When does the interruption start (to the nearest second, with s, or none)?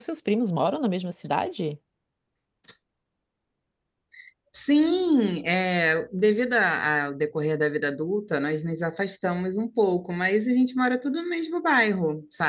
none